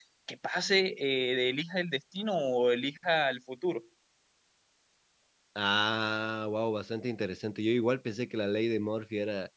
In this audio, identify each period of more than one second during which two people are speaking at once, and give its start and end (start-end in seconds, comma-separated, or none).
none